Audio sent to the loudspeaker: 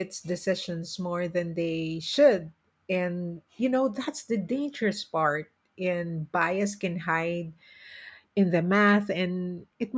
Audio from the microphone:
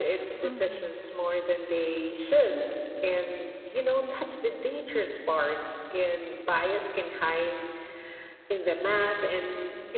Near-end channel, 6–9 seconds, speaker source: echo only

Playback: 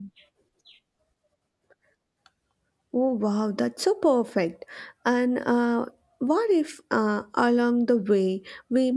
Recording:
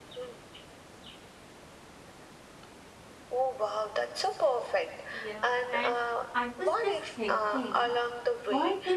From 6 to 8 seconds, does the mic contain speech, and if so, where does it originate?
both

